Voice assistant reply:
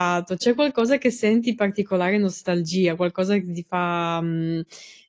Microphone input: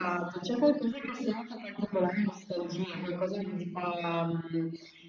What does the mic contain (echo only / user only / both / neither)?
echo only